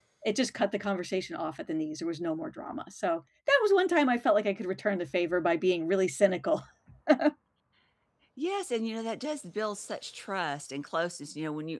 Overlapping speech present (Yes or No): No